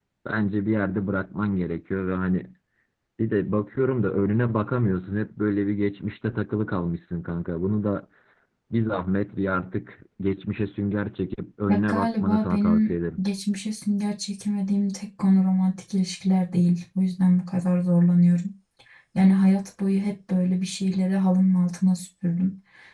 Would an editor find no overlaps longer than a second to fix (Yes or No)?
No